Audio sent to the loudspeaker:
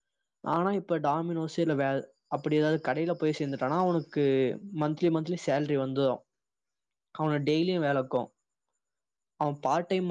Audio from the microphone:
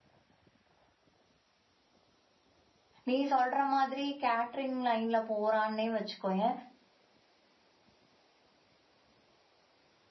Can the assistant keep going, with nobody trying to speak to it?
No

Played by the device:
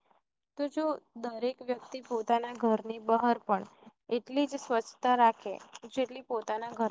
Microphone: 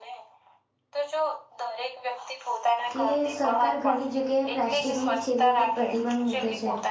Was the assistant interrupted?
Yes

